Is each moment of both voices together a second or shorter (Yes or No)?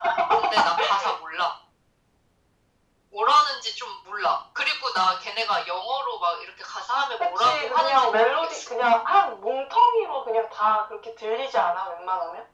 No